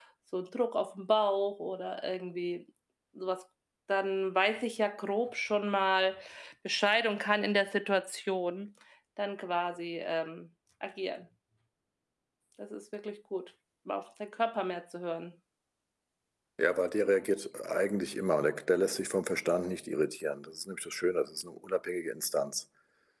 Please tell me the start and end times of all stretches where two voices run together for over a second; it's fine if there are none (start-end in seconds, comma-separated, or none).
none